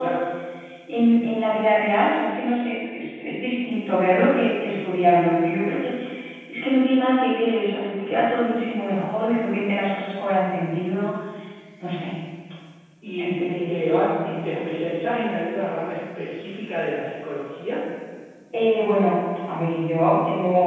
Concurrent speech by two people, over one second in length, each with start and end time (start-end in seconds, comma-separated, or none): 13.2-14.7